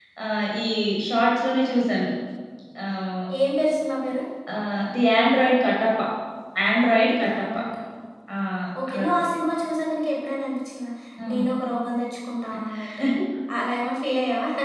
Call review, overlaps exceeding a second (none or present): none